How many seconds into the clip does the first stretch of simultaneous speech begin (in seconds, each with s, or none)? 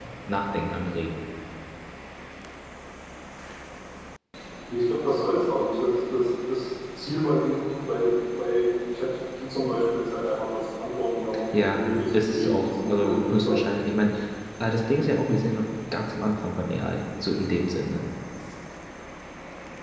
11.5 s